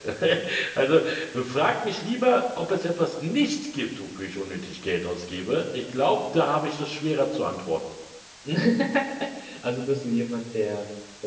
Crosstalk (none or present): none